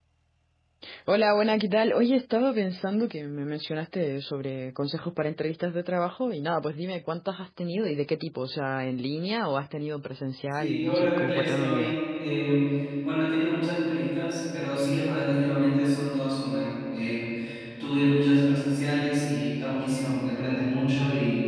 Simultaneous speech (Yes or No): Yes